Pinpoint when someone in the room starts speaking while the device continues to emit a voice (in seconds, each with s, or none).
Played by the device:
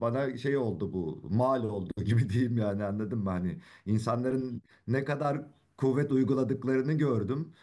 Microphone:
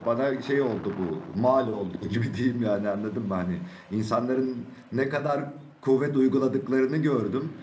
none